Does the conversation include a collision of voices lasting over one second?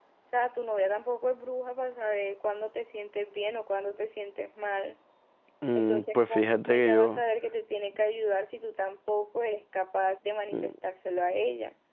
Yes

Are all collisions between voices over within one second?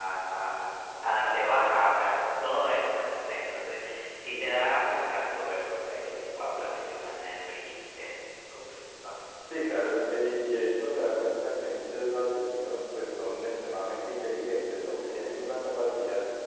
Yes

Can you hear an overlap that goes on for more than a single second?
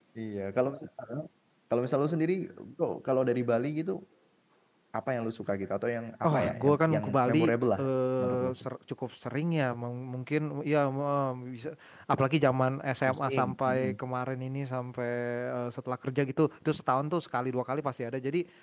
Yes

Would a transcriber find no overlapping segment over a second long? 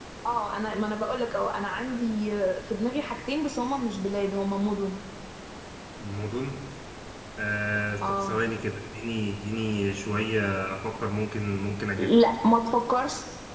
Yes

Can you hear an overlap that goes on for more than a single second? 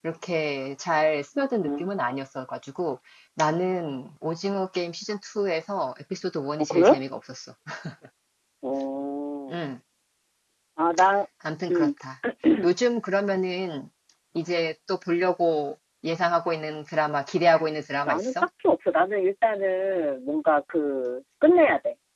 No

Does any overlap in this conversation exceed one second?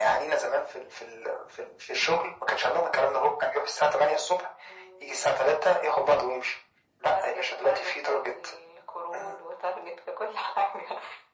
Yes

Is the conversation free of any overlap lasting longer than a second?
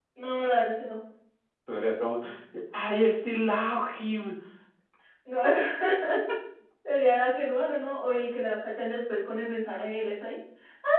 Yes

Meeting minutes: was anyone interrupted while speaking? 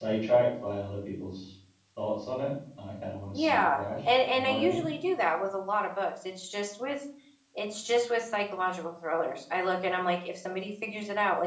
Yes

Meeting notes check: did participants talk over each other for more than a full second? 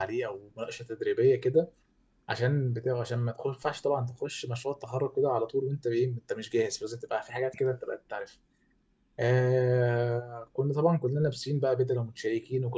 No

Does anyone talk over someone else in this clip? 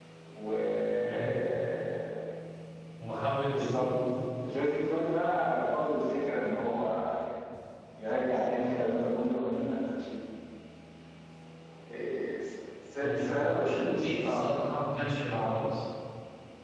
Yes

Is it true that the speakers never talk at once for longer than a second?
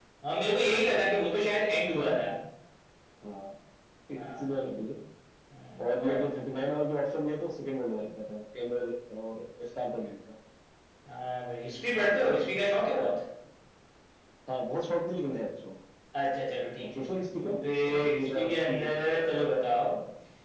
No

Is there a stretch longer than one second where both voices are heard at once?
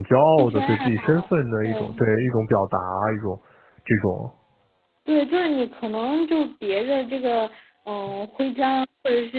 Yes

